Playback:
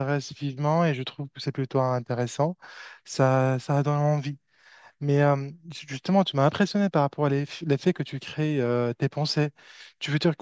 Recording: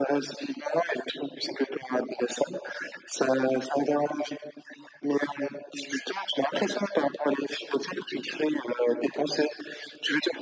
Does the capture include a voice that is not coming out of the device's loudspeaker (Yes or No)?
No